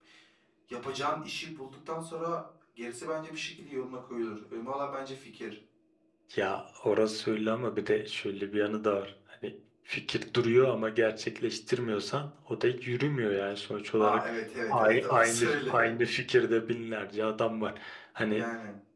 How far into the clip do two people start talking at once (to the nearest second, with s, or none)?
14 s